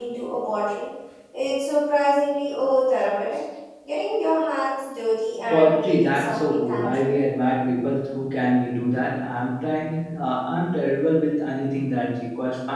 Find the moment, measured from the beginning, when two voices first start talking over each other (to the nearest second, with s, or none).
6 s